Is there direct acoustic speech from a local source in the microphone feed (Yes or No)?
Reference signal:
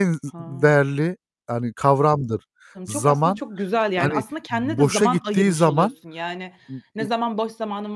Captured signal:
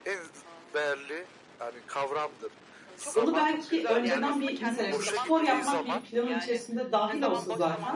Yes